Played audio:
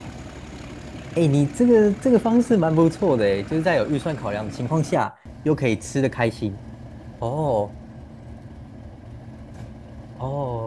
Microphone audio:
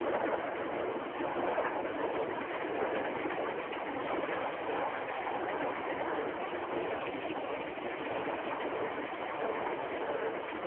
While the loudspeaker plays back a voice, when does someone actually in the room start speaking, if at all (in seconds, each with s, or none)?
none